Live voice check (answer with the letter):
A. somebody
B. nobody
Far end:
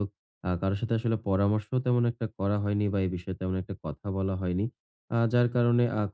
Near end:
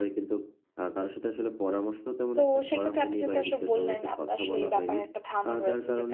A